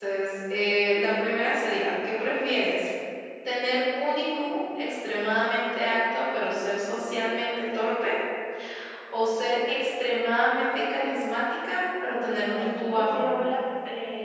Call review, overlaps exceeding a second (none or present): present